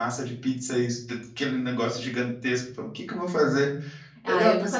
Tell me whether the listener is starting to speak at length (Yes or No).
Yes